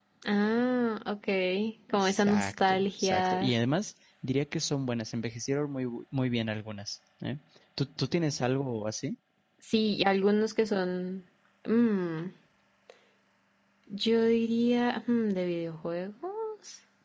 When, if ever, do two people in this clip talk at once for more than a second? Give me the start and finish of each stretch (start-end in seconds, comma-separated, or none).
1.9-3.5